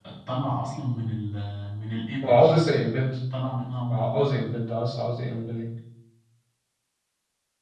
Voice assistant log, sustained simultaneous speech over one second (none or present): none